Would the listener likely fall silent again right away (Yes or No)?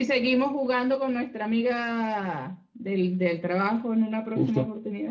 No